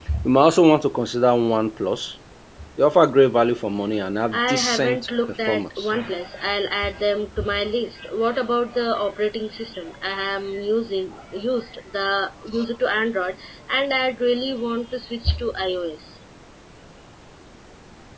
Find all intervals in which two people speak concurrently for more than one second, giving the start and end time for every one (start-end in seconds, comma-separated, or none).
4.3-5.9